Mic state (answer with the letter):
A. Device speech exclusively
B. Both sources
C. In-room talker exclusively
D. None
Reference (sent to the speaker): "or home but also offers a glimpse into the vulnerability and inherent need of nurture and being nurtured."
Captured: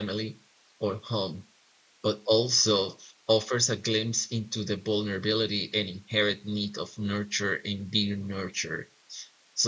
A